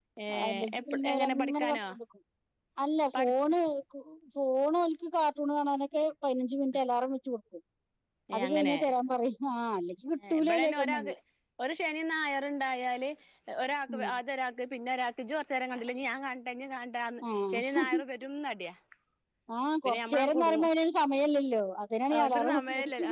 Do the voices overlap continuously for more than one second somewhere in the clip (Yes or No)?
Yes